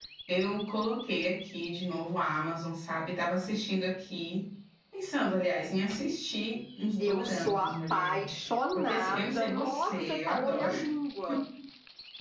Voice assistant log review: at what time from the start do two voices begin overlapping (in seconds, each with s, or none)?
7.0 s